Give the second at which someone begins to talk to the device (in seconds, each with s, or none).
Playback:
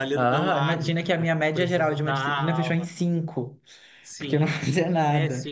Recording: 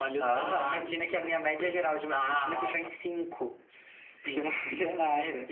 none